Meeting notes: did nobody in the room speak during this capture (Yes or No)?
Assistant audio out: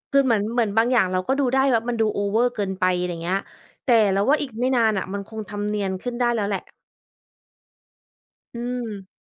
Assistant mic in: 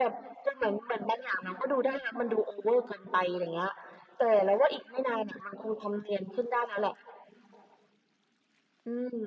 Yes